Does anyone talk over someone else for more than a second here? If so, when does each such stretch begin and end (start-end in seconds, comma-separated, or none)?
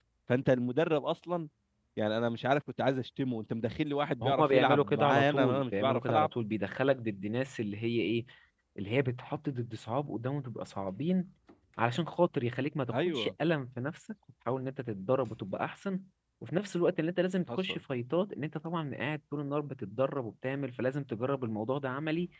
4.2-6.3